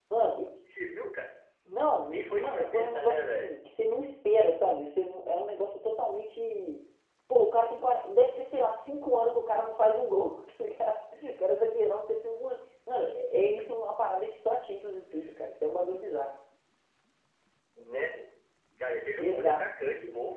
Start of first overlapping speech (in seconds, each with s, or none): 2.0 s